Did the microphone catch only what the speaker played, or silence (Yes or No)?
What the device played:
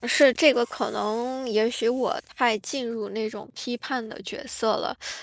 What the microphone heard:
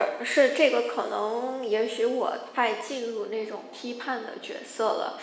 Yes